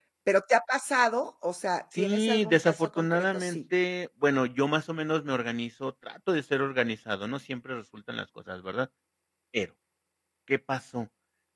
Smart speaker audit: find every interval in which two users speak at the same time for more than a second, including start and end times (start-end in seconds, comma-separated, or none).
2.0-3.6